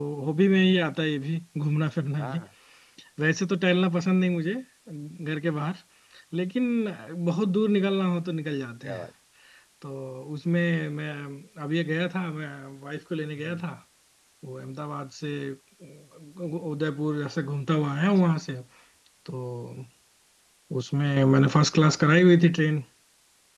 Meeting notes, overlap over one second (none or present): none